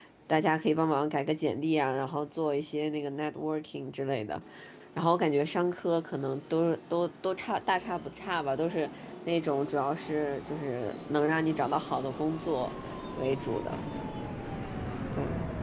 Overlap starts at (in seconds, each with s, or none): none